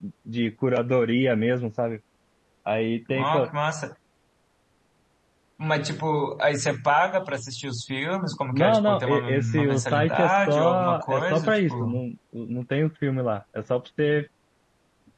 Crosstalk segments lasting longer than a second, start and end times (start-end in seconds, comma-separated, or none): 8.5-11.9